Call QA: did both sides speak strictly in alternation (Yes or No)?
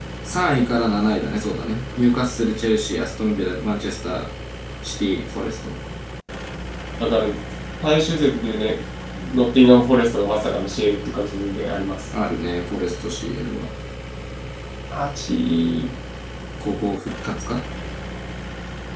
Yes